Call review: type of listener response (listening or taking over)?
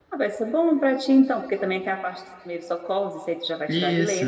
listening